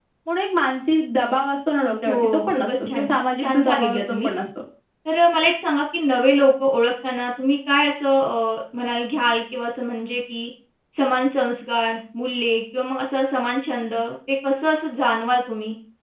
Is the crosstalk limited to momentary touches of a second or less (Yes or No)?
No